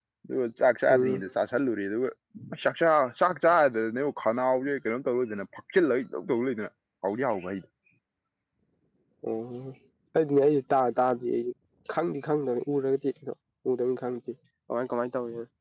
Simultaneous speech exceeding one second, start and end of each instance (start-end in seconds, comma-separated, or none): none